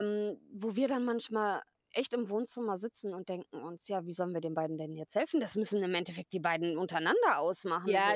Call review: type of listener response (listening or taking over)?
taking over